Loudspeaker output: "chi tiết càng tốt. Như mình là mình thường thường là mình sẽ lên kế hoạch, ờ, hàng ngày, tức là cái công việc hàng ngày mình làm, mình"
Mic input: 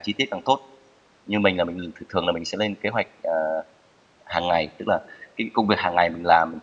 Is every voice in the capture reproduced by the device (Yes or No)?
Yes